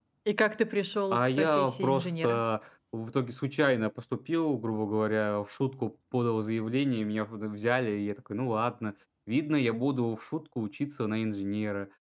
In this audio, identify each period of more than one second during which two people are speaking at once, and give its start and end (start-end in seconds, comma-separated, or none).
1.1-2.4